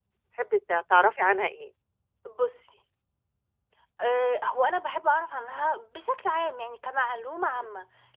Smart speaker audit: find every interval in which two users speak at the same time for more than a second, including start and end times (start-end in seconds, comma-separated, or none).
none